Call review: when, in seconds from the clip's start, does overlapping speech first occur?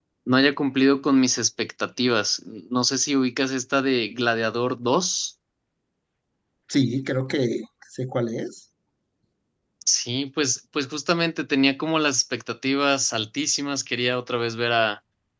none

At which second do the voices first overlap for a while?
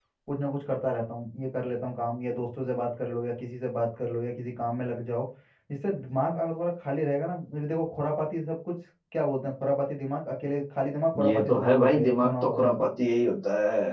11.1 s

